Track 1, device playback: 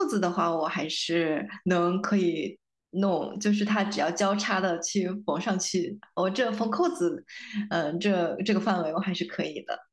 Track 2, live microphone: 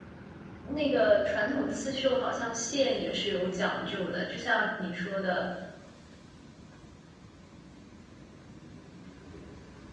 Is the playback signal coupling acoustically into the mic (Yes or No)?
No